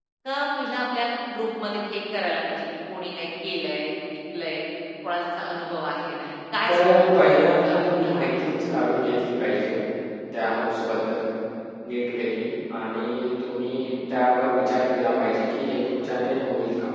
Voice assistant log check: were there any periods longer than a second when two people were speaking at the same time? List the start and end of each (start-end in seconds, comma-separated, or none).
6.7-8.5